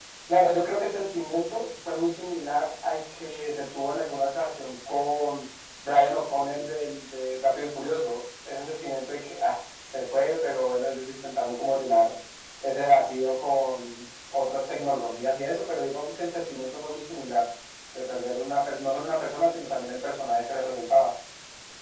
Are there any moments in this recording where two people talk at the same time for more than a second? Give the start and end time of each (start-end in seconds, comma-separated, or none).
none